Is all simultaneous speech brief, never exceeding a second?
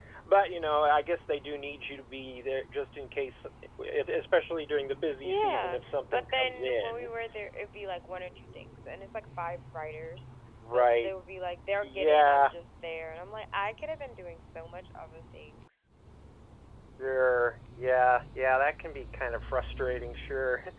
No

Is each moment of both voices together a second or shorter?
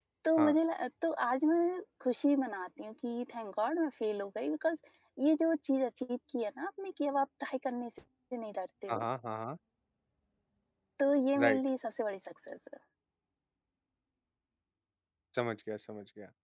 Yes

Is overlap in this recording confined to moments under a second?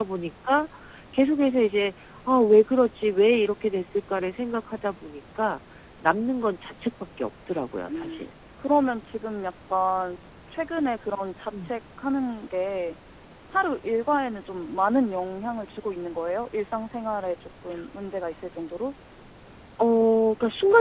Yes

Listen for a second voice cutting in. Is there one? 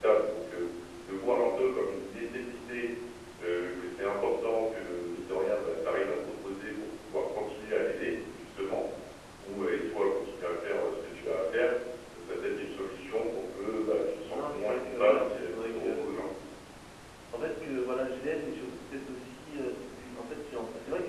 Yes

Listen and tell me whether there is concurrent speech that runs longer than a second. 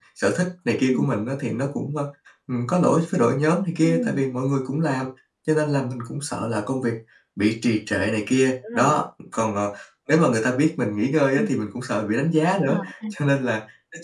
No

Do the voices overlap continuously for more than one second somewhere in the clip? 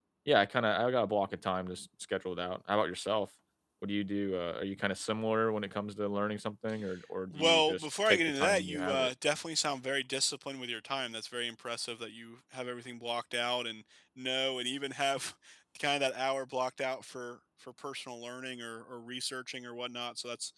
Yes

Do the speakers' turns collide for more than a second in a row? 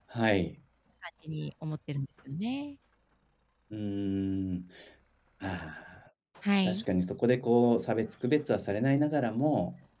No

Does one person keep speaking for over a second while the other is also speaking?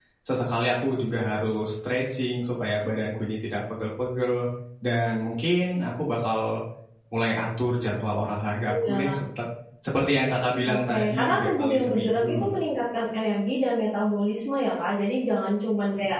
Yes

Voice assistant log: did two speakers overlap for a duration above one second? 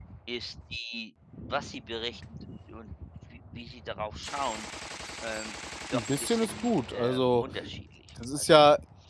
Yes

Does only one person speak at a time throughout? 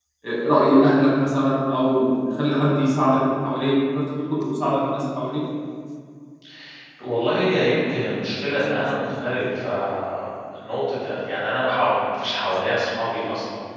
Yes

